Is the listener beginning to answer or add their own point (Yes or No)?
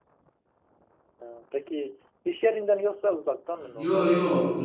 Yes